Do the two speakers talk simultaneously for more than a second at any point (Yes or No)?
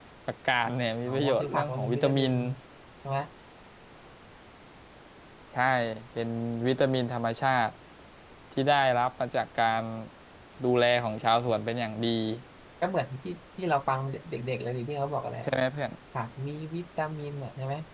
Yes